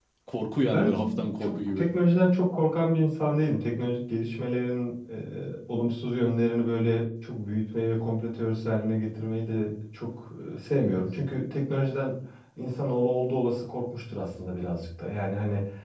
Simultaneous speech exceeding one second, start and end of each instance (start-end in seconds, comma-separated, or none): 0.7-1.9